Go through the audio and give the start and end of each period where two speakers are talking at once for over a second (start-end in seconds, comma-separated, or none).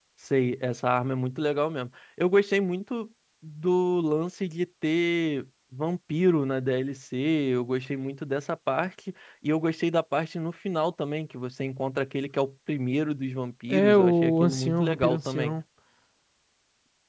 13.7-15.6